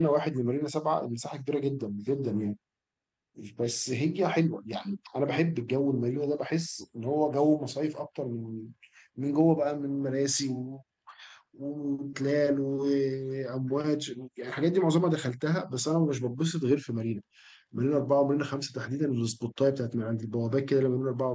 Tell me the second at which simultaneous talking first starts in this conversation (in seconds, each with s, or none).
none